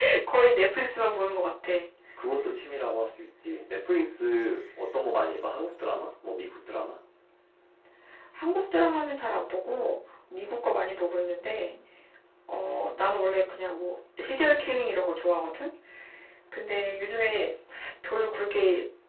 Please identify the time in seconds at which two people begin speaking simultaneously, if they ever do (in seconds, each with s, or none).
none